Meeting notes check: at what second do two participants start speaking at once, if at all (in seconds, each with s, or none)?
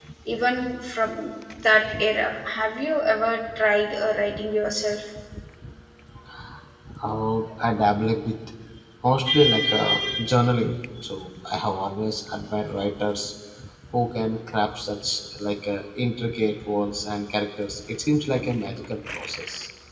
none